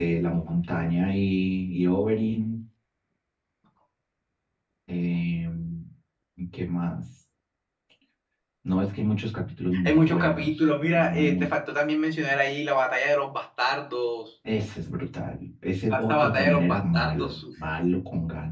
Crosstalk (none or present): present